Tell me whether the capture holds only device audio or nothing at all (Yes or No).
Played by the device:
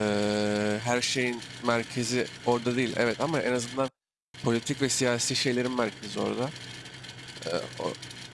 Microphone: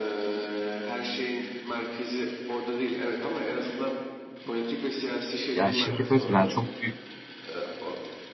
No